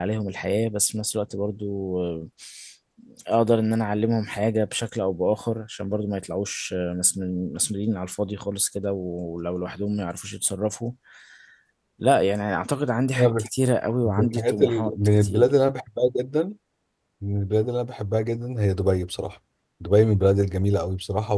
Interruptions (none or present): present